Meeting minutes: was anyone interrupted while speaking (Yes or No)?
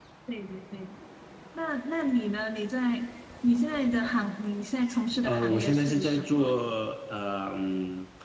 Yes